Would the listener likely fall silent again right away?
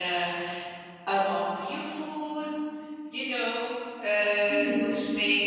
Yes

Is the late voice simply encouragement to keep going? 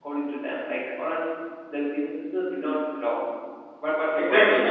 No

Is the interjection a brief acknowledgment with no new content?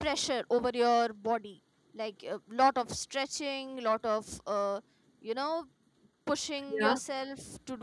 Yes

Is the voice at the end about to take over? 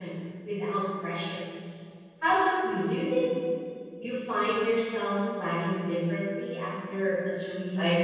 Yes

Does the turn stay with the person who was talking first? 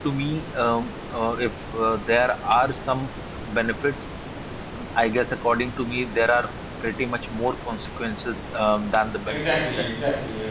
No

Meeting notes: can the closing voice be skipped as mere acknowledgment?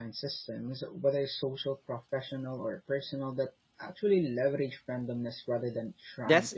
No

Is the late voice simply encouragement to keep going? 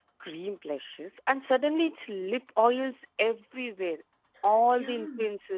Yes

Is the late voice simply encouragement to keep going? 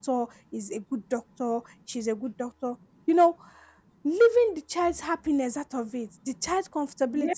Yes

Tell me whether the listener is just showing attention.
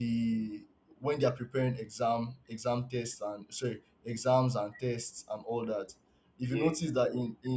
Yes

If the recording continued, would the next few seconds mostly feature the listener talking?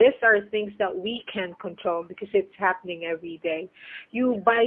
No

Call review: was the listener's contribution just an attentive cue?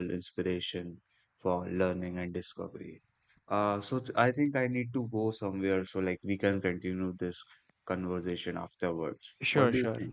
No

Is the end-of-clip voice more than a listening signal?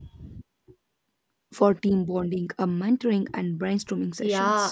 Yes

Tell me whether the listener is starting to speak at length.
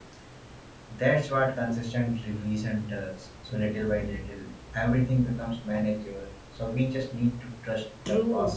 Yes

